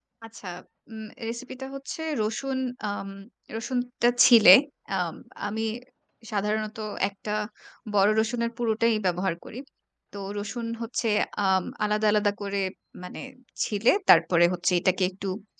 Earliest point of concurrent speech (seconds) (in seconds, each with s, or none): none